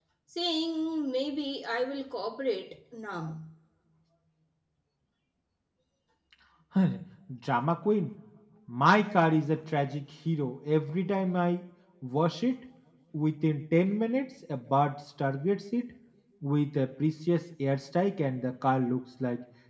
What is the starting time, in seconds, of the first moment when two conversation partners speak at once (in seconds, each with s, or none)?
none